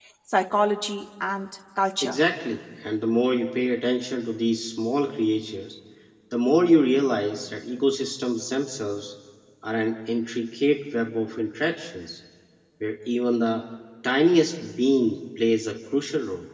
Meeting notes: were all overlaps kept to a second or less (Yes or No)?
Yes